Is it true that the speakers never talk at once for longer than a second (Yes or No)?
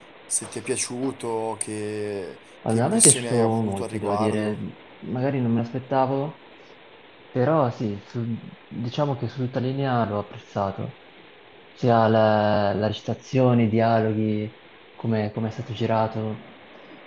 No